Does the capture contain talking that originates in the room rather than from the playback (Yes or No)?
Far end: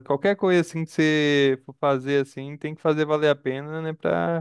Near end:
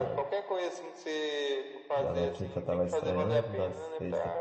Yes